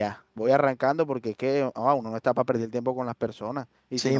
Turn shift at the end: Yes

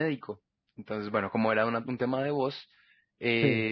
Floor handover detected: No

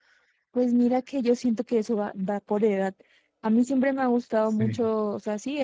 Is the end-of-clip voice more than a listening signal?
No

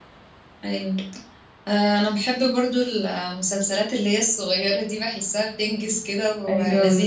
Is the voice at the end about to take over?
Yes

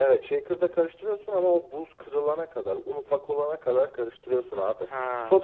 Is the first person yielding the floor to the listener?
No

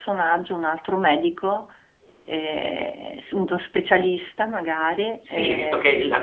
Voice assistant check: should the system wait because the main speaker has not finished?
No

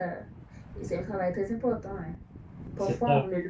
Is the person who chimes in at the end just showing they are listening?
Yes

